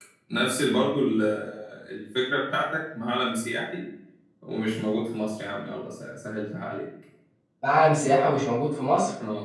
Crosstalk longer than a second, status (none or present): none